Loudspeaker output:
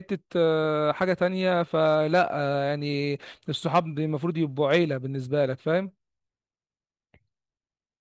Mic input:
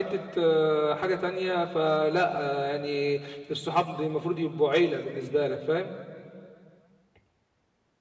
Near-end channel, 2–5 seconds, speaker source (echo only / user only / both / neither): echo only